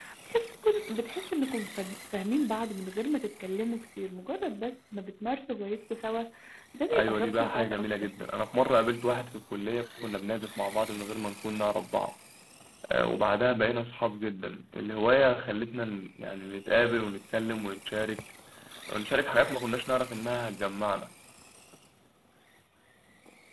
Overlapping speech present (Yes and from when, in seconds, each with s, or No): Yes, from 6.9 s